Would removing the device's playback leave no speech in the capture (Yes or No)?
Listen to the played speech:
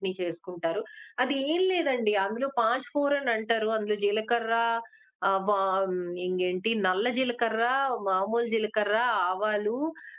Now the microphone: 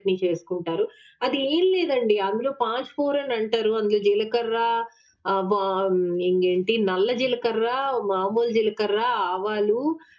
Yes